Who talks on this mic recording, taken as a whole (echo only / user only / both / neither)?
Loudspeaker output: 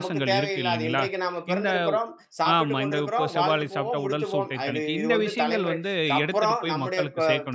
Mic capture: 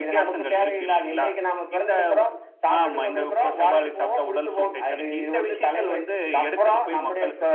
echo only